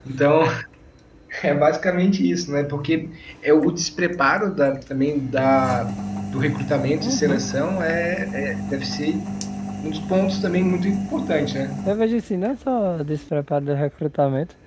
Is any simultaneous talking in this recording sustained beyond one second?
No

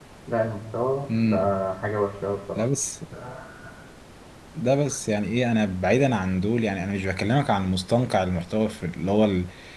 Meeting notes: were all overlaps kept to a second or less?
Yes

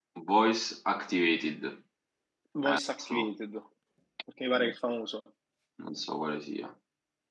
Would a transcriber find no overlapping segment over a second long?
Yes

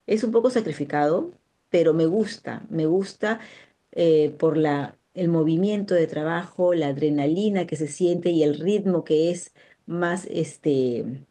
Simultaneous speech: No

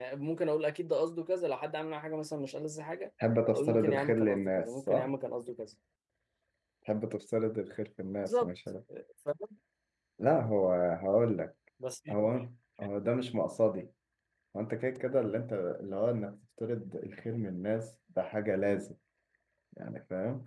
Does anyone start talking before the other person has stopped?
Yes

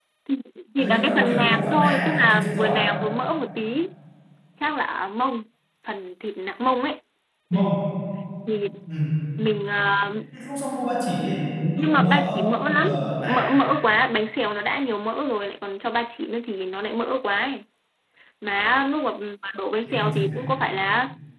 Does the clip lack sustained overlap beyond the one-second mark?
No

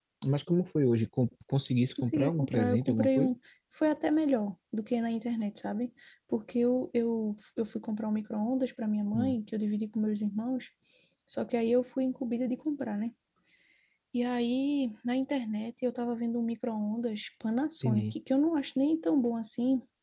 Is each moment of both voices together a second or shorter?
No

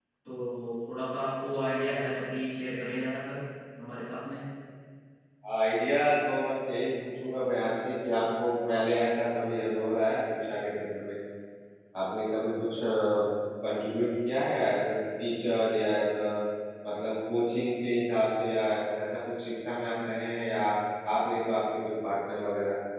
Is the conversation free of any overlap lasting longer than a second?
Yes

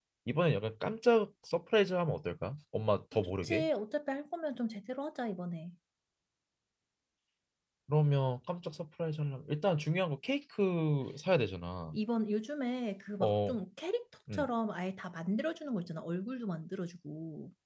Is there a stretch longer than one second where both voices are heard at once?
No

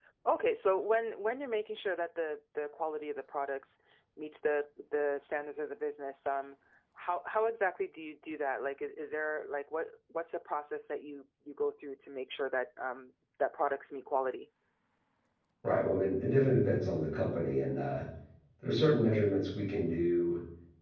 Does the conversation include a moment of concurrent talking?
No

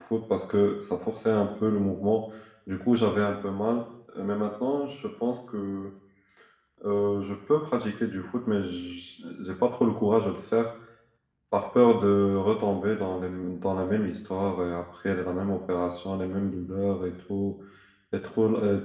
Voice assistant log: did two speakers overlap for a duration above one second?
No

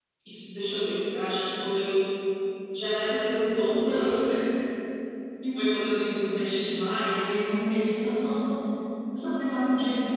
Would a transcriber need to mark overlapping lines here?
No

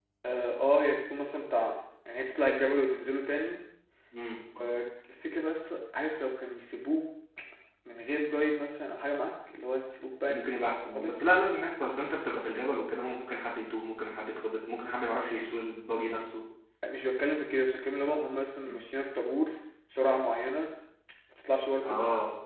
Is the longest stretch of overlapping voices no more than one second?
Yes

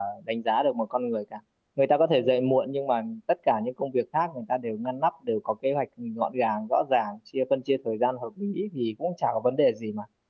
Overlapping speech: No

